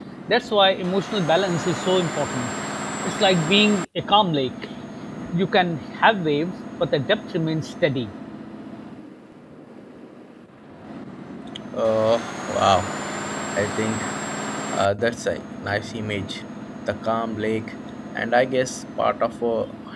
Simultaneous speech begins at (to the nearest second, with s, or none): none